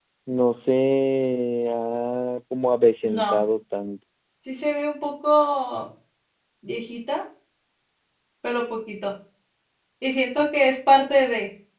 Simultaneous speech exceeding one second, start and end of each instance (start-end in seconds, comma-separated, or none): none